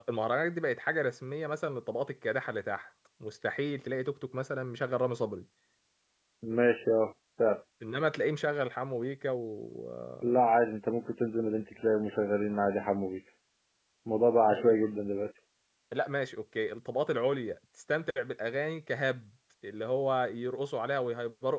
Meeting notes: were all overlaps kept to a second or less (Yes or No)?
Yes